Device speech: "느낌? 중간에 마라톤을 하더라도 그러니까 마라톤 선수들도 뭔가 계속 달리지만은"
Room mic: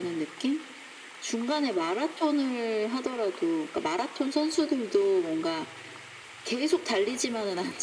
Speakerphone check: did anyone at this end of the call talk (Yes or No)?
No